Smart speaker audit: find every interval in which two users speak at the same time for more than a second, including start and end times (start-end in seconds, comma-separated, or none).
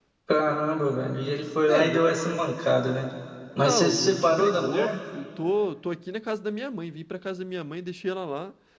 3.6-5.0